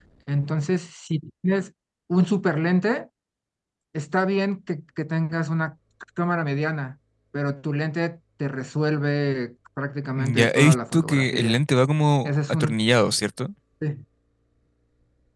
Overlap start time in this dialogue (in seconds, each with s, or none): 10.2 s